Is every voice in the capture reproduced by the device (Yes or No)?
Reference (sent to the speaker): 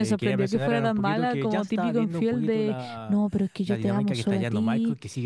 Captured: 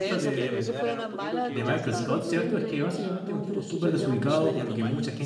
No